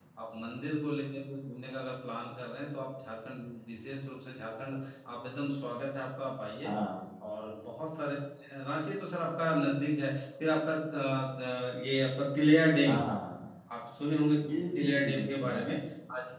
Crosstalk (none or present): present